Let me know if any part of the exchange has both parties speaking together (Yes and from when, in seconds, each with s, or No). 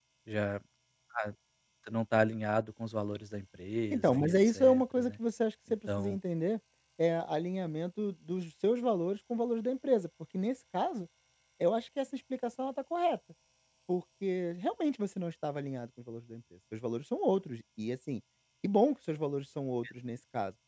Yes, from 3.9 s